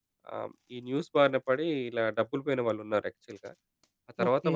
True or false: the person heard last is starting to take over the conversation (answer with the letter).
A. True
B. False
B